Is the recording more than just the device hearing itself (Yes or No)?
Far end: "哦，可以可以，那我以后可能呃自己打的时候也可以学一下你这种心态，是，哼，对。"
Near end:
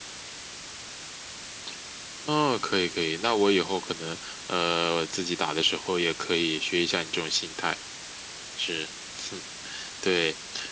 No